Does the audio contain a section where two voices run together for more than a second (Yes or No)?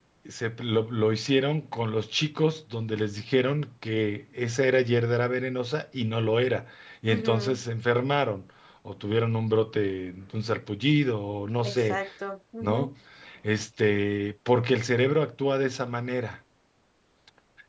No